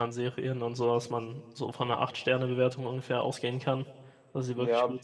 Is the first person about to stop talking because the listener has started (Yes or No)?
Yes